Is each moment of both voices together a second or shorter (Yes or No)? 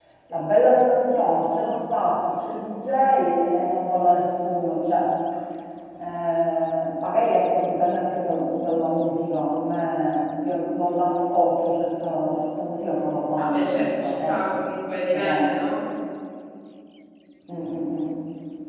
No